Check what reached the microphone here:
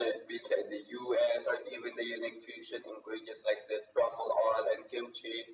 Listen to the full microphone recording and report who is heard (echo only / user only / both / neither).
echo only